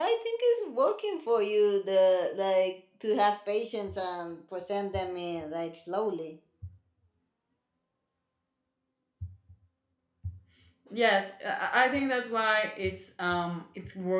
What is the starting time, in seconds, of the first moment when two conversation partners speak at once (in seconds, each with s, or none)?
none